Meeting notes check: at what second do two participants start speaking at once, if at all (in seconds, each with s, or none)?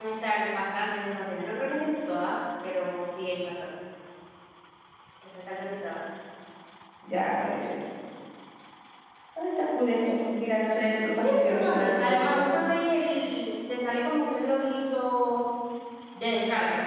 11.2 s